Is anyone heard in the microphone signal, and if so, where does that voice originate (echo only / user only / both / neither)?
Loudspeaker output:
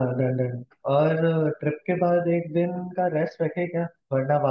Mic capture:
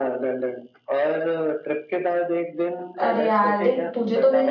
both